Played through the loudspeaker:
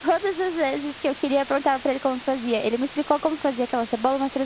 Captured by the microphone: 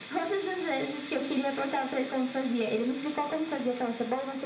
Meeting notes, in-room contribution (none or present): none